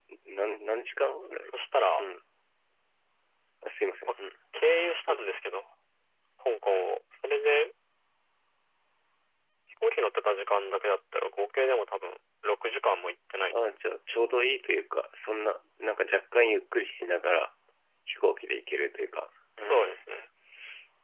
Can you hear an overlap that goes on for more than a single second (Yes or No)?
No